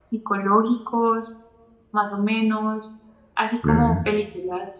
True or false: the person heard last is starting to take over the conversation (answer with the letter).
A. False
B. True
A